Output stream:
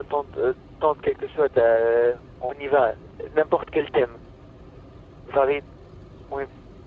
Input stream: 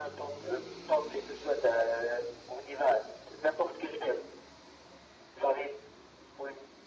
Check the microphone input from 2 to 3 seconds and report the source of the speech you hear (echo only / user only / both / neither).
echo only